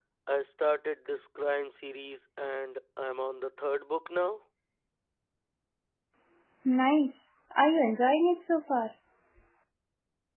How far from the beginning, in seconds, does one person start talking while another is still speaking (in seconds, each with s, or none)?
none